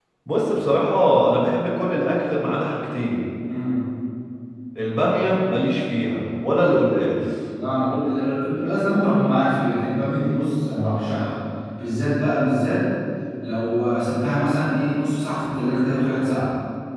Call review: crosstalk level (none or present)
none